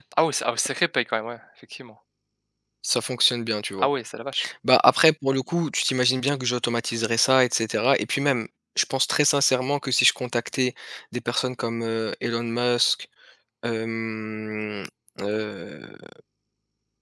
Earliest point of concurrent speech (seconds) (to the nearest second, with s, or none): none